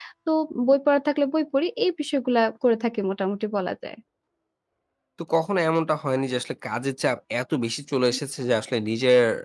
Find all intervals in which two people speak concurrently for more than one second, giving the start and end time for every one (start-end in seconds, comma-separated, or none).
none